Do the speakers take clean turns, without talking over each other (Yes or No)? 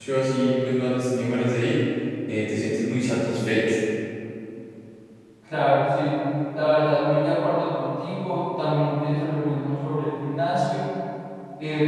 Yes